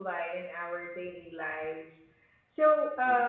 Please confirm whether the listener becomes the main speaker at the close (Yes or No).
No